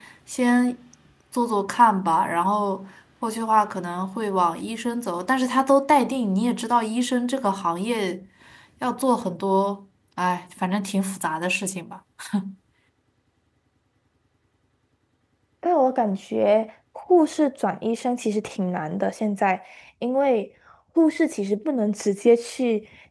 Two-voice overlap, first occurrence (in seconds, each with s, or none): none